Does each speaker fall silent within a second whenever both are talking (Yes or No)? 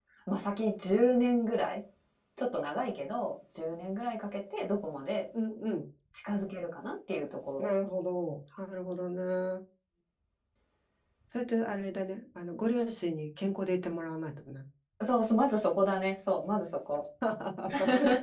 Yes